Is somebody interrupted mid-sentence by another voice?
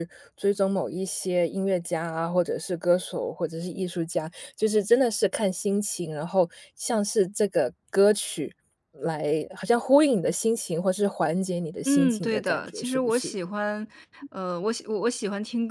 Yes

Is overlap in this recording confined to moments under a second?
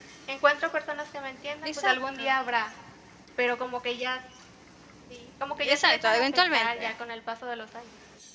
No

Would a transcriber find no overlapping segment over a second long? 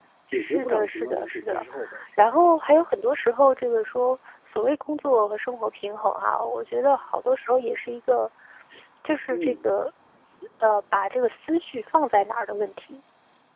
No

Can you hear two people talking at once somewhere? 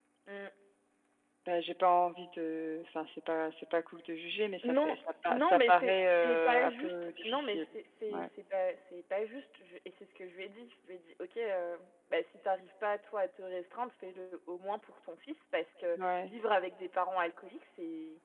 Yes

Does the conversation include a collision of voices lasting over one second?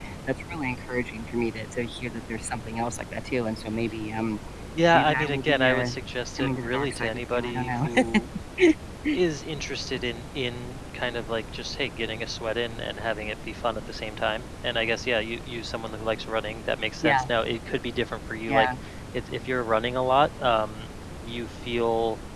Yes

